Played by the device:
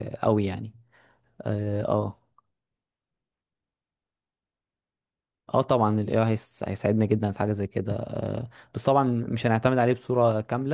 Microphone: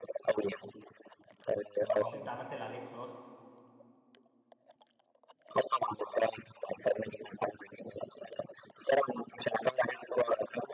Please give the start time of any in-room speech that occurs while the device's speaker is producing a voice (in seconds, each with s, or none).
1.8 s